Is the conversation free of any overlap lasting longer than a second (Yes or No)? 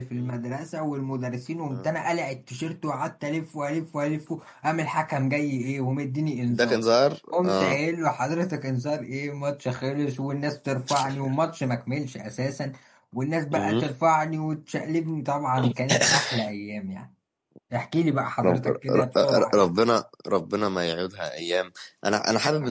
No